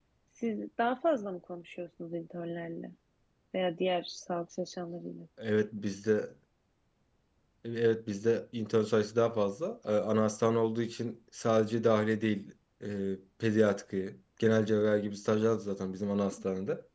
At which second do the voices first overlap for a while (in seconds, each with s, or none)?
none